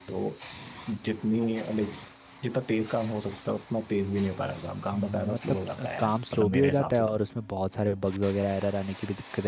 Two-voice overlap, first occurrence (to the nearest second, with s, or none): 5 s